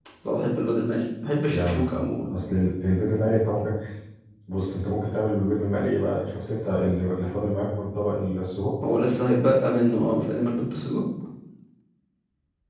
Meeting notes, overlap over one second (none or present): none